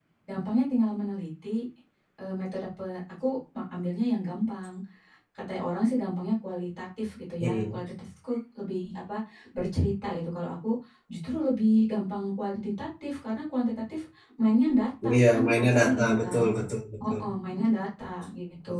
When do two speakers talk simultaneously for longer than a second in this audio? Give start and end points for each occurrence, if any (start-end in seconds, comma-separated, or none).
15.1-16.5